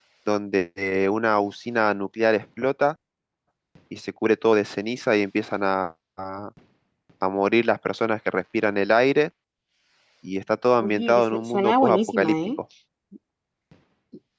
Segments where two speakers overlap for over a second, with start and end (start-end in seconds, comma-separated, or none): 10.8-12.3